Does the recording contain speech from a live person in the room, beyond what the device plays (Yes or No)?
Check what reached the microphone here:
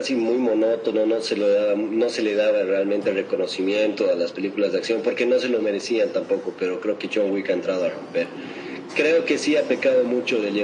No